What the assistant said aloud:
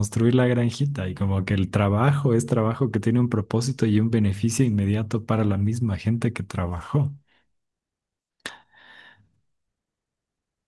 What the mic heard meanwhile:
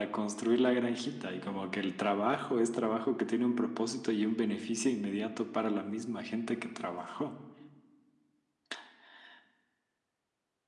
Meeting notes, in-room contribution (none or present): none